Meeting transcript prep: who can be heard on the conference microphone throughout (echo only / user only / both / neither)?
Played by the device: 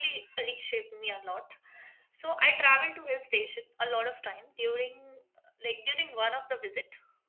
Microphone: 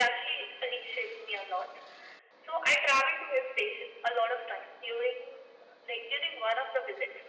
echo only